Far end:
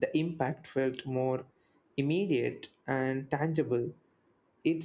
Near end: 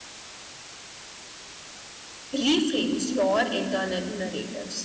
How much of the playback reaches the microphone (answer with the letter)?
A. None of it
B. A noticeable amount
A